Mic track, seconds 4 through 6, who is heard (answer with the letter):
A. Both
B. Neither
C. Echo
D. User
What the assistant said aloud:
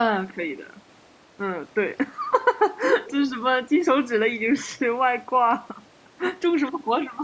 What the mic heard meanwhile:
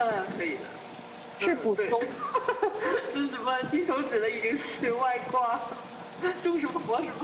C